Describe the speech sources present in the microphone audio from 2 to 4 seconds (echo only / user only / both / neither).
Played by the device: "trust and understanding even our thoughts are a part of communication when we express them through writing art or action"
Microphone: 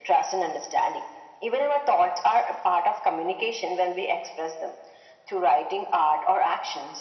echo only